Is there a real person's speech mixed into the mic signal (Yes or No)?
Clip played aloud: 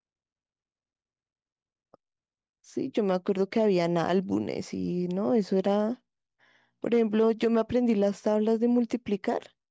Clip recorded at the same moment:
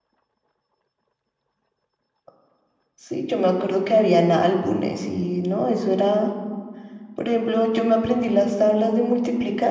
No